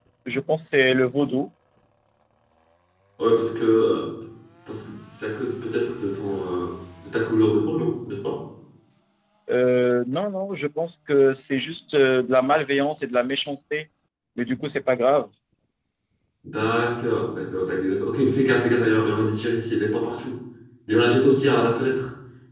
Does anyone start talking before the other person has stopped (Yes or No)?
No